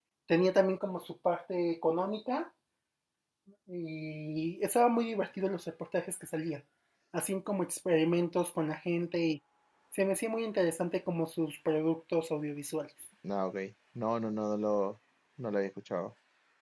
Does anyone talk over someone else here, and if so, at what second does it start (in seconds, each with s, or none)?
none